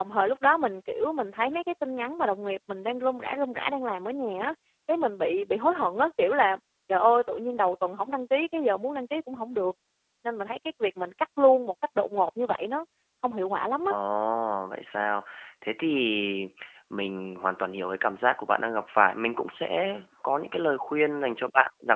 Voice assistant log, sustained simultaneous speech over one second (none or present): none